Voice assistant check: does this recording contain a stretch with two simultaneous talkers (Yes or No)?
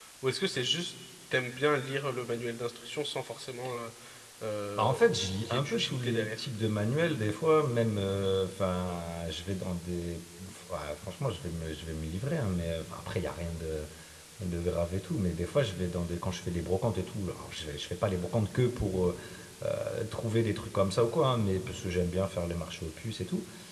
Yes